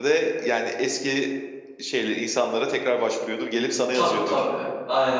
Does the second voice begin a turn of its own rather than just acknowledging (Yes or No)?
Yes